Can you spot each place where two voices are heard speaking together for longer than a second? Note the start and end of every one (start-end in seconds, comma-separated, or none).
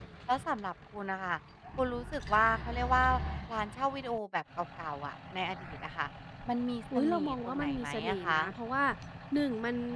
7.0-8.4